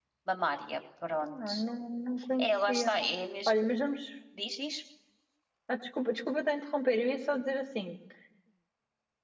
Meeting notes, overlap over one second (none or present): none